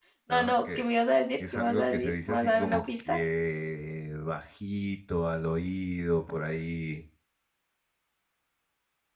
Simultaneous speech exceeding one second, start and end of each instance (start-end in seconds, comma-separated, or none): 1.5-3.2